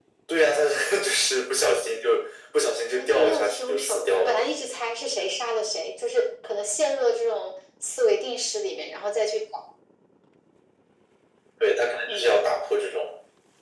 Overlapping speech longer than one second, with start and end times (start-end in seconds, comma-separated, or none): 2.9-4.5